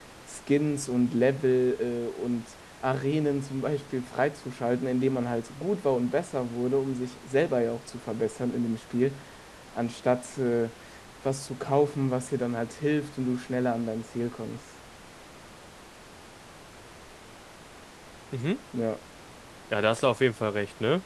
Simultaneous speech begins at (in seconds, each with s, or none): none